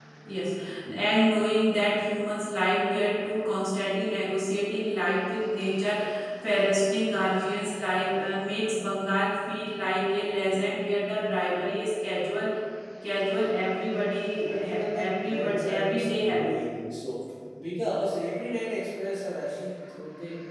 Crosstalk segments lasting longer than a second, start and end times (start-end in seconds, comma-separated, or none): 14.5-16.6